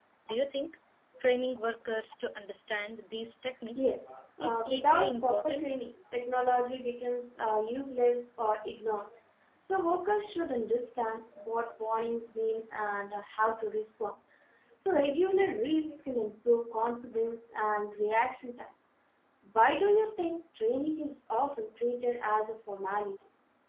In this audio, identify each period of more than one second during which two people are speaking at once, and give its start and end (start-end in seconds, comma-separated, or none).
4.4-5.7